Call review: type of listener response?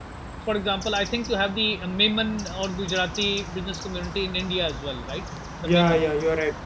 taking over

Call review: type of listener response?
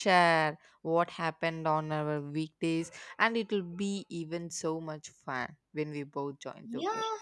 taking over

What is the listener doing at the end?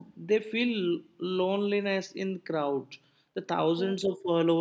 listening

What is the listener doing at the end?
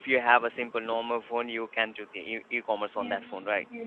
taking over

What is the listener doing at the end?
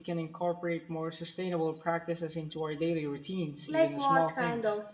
taking over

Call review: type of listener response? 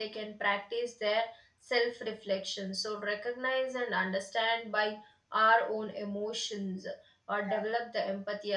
listening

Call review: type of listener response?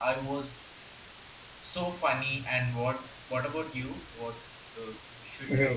taking over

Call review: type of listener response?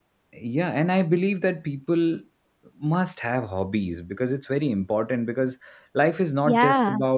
listening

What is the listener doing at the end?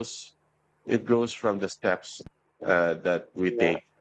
listening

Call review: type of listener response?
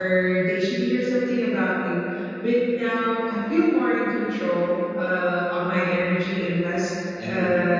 listening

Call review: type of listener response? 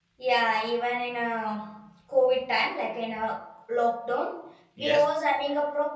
listening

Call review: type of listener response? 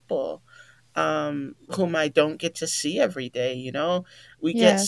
listening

